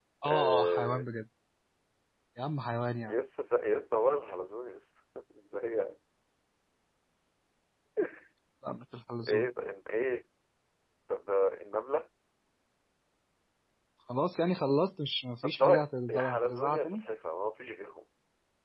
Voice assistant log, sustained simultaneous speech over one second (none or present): present